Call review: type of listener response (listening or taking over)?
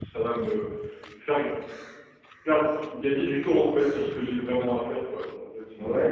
taking over